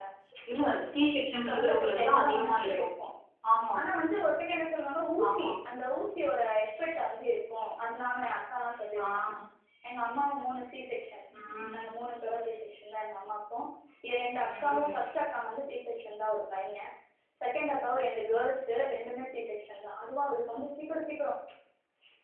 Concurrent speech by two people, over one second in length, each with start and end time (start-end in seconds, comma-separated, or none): 1.5-2.9